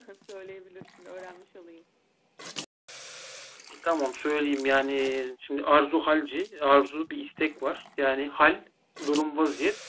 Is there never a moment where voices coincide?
Yes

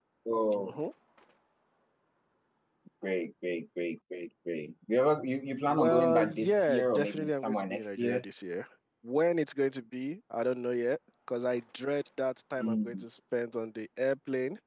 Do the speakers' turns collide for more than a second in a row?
Yes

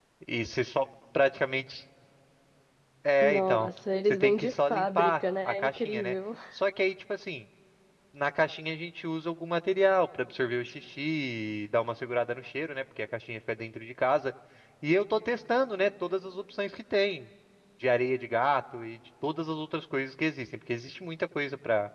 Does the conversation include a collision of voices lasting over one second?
Yes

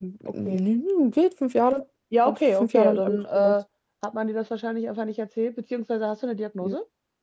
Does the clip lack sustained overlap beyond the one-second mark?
No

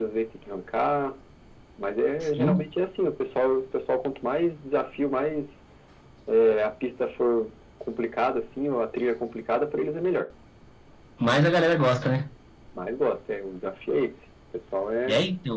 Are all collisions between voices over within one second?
Yes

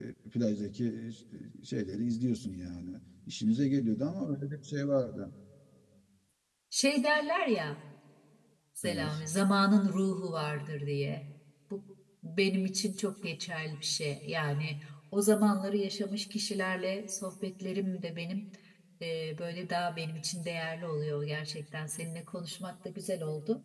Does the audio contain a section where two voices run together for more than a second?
No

